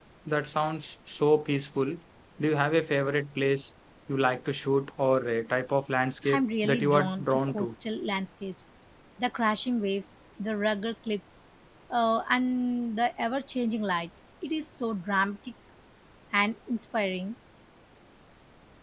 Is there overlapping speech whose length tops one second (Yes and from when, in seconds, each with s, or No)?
Yes, from 6.2 s